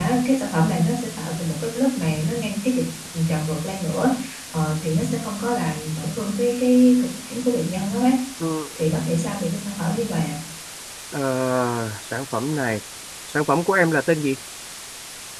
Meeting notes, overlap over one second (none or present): none